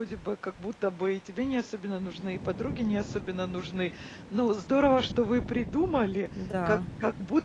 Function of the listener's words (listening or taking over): listening